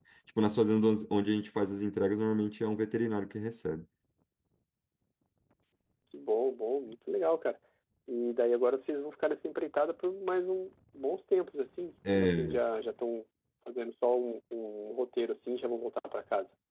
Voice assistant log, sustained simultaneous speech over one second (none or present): none